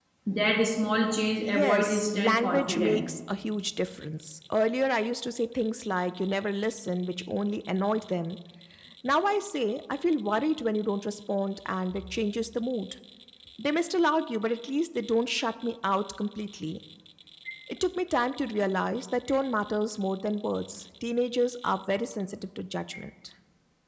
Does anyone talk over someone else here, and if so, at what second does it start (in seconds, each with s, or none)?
1.4 s